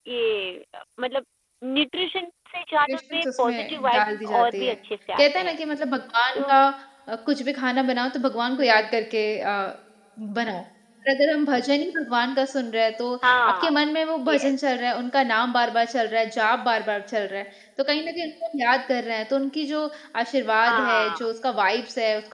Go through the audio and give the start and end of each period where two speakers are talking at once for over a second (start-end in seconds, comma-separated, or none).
2.9-4.8